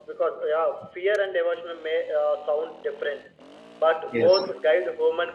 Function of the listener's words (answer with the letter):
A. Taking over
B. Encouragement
B